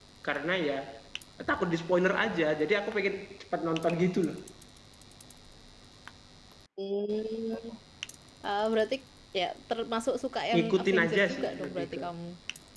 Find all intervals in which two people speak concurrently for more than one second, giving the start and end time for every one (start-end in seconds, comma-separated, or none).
10.5-12.0